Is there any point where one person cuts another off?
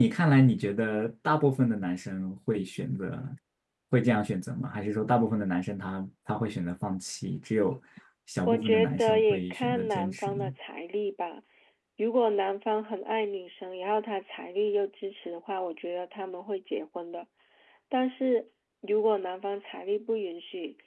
Yes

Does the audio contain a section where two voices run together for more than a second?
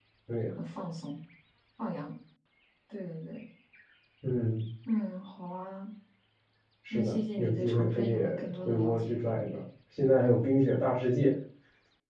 Yes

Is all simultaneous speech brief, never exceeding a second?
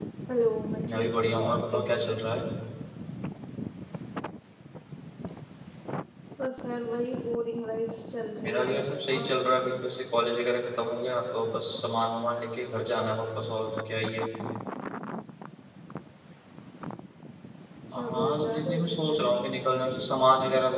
No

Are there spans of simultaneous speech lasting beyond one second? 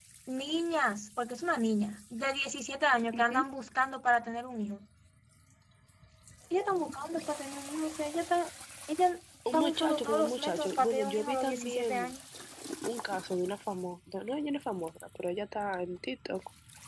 Yes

